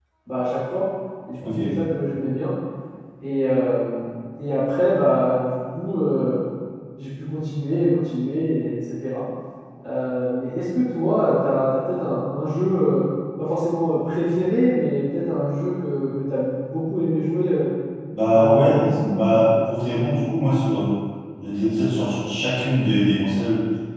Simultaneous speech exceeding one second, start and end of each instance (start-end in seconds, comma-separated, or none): 18.3-20.0